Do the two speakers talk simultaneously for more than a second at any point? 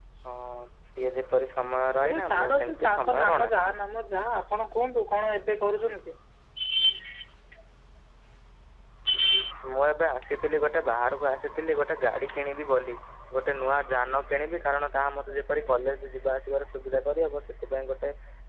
Yes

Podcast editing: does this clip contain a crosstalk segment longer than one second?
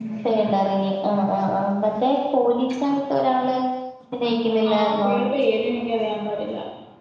No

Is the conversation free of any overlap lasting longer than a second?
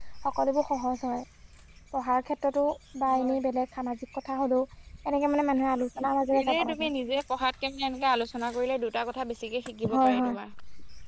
Yes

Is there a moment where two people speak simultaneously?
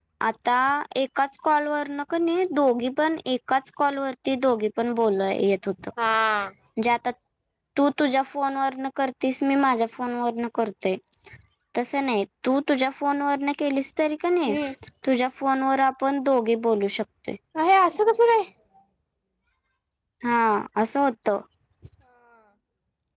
No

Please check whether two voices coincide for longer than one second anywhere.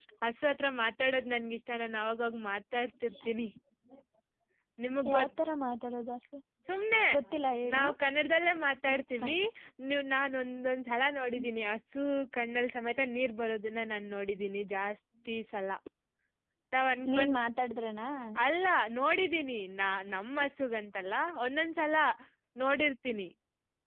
No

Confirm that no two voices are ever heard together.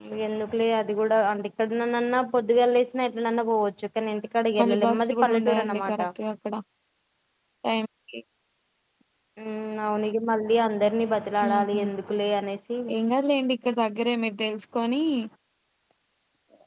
No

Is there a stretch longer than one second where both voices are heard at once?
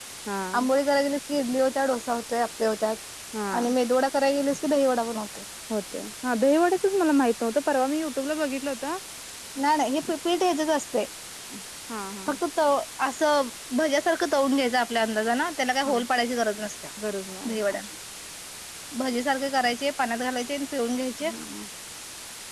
No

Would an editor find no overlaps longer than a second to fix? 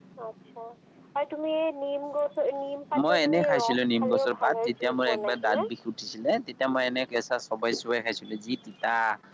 No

